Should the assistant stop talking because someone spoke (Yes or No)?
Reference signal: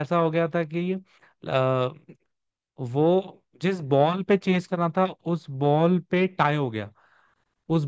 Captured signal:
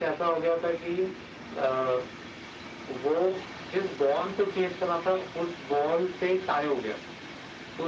No